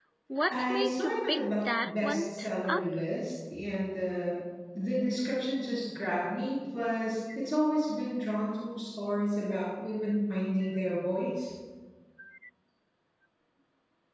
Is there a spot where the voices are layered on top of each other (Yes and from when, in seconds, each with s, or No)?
Yes, from 0.5 s